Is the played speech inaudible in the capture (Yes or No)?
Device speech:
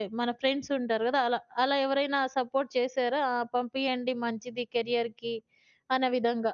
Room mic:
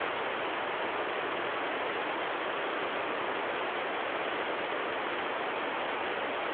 Yes